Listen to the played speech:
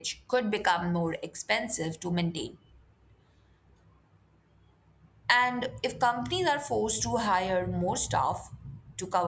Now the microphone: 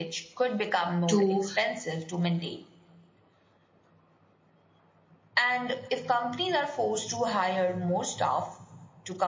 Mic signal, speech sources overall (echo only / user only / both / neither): both